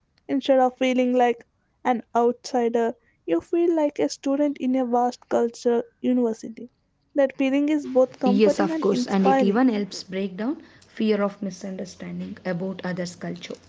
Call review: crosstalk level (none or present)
present